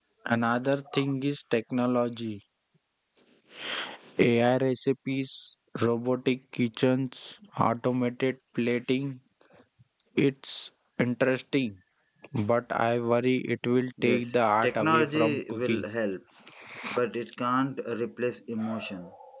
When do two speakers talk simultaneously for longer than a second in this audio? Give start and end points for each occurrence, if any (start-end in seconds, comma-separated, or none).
14.0-15.8